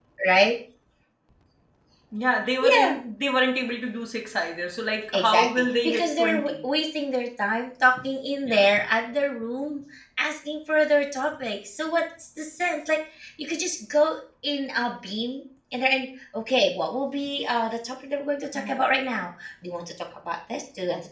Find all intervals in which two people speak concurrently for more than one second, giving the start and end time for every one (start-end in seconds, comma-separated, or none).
5.1-6.6